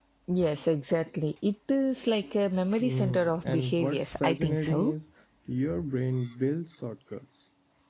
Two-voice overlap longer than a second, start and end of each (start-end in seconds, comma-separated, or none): 2.8-4.9